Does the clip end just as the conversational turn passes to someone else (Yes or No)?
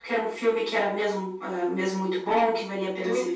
No